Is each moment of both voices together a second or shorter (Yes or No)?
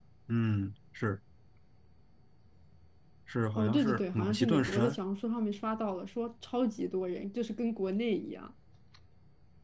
No